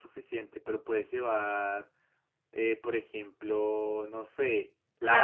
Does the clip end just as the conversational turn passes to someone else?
No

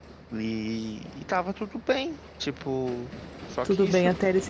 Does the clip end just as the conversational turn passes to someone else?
Yes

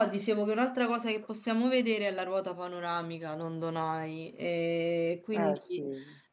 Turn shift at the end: No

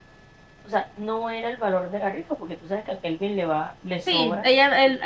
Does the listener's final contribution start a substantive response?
Yes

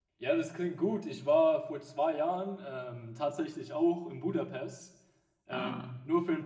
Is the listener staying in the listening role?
Yes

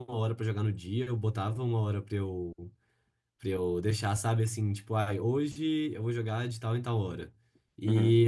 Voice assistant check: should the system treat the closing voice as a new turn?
No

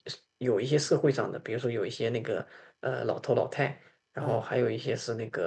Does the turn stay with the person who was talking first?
Yes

